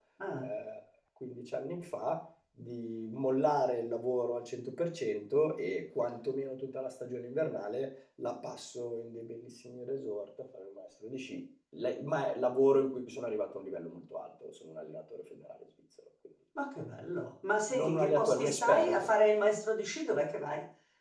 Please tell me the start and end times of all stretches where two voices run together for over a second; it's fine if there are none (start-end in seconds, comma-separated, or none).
17.7-19.0